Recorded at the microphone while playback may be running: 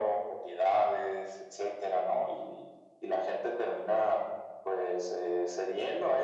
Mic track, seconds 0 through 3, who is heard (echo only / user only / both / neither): echo only